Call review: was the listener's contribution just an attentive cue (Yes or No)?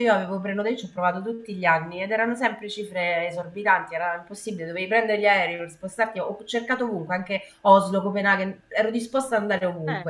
Yes